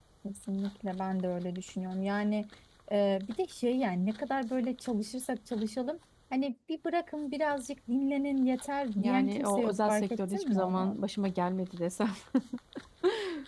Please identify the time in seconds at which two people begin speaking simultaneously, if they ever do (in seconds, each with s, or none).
9.0 s